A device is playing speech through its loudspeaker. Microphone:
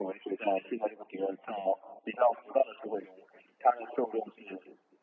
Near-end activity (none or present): none